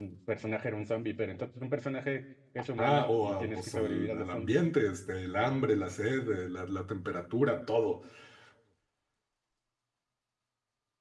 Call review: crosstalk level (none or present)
present